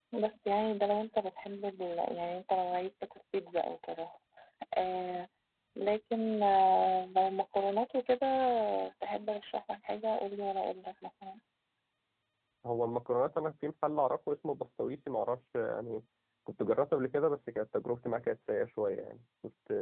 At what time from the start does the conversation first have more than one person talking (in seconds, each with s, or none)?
none